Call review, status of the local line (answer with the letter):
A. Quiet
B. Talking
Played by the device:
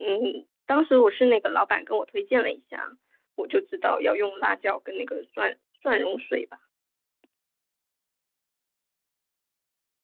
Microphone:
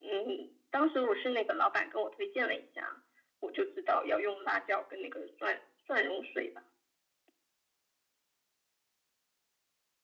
A